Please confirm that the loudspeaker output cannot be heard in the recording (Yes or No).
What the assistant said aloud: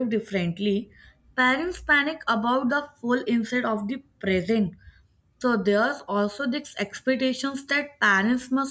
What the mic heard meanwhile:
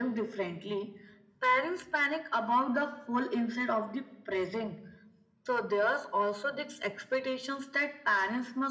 No